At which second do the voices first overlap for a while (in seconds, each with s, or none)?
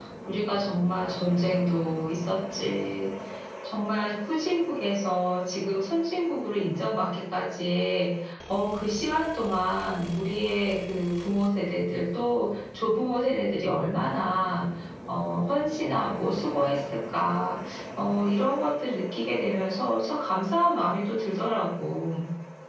none